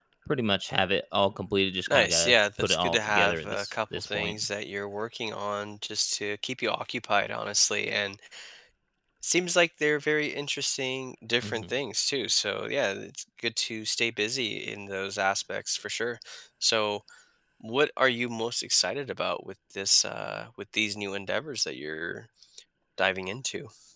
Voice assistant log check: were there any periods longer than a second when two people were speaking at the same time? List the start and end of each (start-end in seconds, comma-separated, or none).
1.9-4.3